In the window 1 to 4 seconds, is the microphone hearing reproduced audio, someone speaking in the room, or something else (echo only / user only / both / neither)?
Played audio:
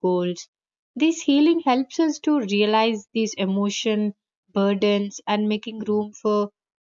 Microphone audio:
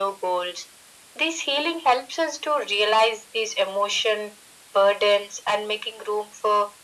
echo only